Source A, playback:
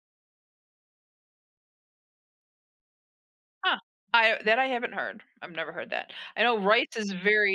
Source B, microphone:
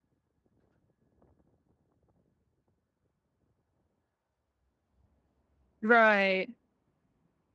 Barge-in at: 5.8 s

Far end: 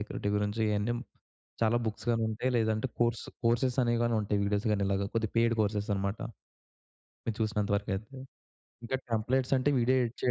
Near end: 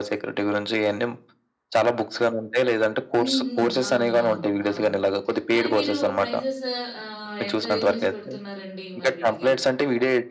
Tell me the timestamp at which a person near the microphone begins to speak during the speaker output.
3.2 s

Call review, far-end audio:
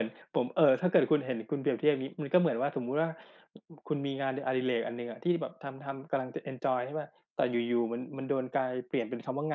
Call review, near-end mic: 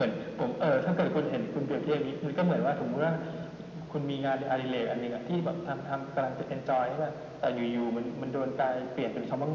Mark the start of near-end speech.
none

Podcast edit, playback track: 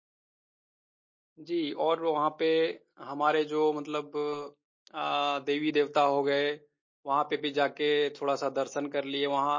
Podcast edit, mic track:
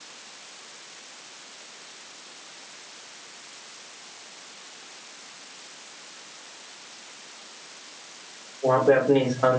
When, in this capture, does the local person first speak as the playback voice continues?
8.7 s

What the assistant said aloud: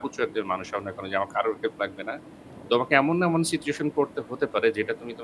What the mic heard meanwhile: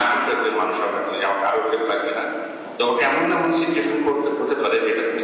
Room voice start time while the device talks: none

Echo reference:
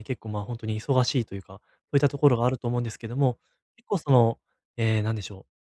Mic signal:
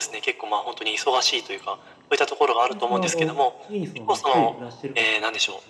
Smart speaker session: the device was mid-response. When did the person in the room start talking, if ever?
2.6 s

